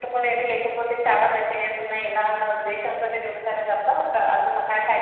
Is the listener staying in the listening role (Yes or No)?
Yes